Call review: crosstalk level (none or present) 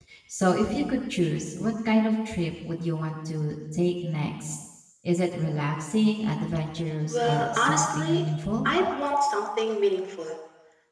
present